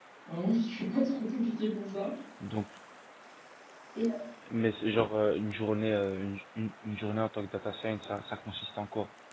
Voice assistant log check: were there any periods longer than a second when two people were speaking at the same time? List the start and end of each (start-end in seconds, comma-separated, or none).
none